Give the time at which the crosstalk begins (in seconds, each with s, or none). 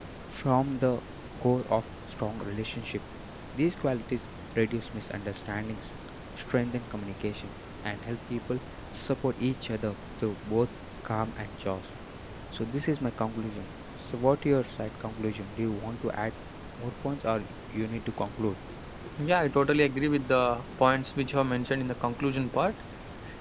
none